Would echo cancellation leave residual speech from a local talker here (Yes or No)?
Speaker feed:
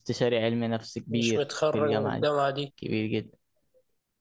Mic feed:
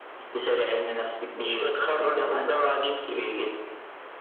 No